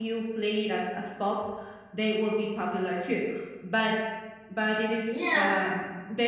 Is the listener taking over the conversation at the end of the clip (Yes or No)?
No